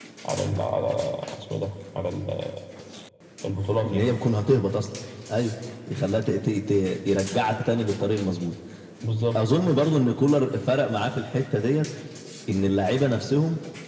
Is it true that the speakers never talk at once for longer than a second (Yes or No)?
Yes